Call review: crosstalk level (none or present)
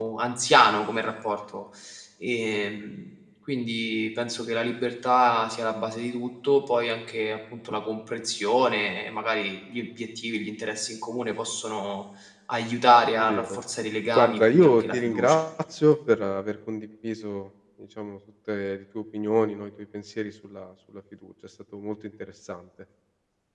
present